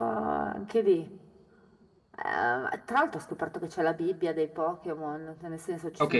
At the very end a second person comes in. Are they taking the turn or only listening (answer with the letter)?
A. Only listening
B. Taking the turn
B